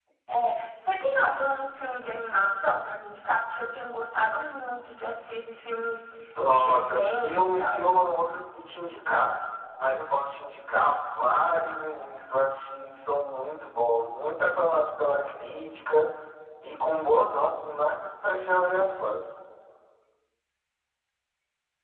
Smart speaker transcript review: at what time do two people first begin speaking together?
6.5 s

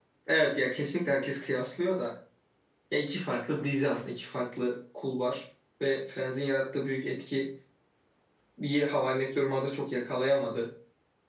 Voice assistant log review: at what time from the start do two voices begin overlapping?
none

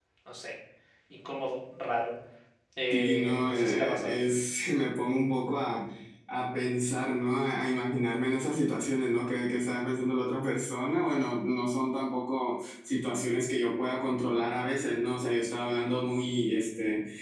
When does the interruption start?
2.9 s

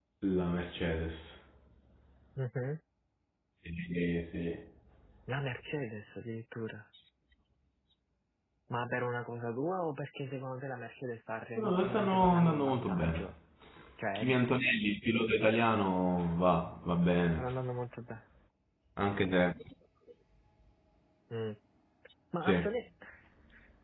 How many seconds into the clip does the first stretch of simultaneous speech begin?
11.6 s

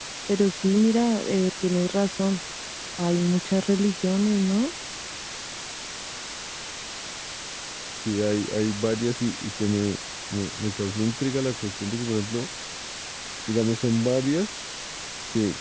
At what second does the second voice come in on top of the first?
none

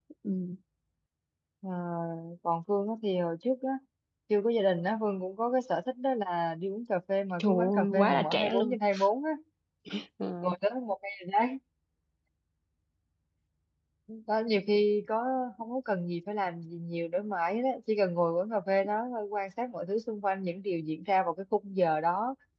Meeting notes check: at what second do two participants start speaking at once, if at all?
7.4 s

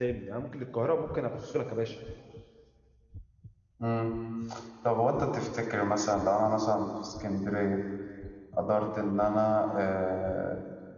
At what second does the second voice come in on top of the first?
none

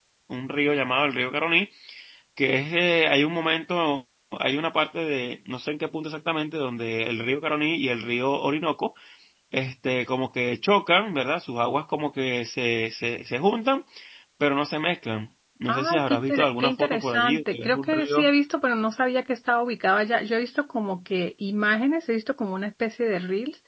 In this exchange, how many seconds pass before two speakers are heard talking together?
15.7 s

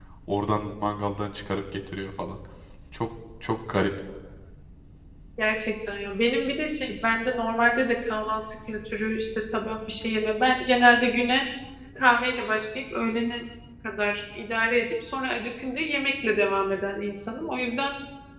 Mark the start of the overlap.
none

